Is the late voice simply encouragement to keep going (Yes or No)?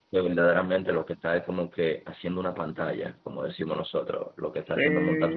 No